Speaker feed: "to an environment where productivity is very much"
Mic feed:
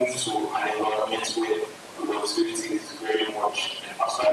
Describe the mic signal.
echo only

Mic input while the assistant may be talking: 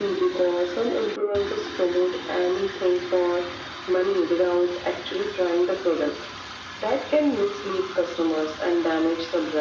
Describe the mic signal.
echo only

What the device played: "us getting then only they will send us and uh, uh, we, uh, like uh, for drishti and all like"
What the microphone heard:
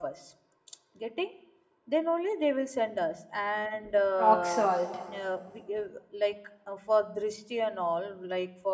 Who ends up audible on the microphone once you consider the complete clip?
both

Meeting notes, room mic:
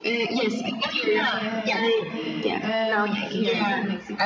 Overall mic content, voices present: both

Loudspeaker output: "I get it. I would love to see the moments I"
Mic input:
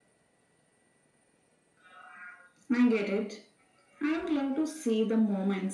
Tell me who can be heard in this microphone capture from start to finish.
echo only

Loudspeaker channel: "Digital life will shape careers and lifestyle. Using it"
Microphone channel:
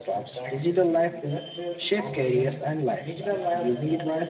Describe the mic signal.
both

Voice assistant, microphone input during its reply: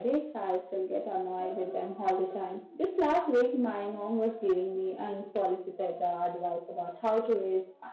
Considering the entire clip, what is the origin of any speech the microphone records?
echo only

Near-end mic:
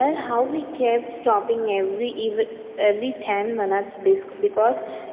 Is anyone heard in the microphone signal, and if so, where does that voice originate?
echo only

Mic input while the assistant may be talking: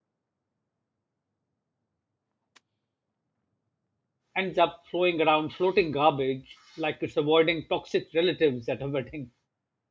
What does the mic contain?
user only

